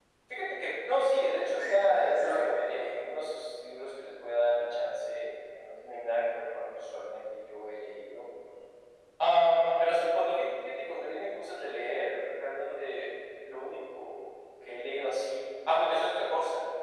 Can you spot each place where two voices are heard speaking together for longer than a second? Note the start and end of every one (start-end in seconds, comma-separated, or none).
1.6-2.8